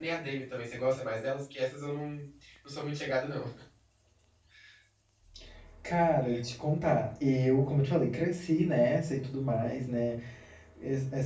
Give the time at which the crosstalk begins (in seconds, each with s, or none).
none